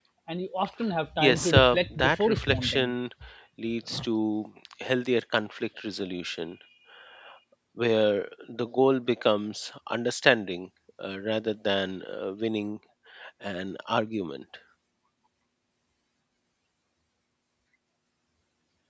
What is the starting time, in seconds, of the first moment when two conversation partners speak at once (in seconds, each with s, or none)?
1.2 s